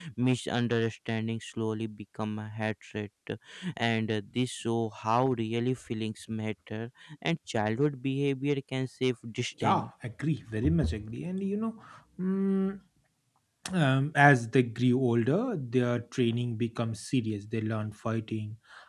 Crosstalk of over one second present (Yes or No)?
No